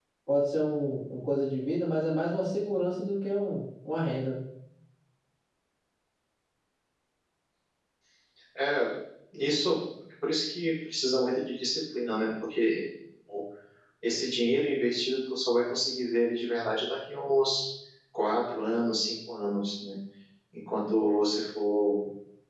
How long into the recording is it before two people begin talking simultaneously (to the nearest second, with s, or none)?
none